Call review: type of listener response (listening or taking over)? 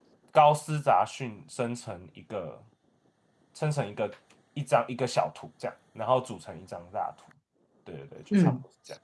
taking over